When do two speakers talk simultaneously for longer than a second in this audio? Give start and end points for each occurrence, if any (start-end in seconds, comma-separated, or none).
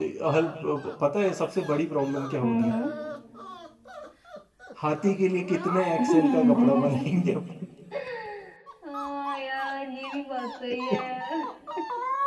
6.0-7.2